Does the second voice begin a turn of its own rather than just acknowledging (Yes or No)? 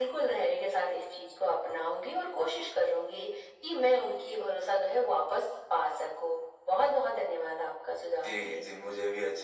Yes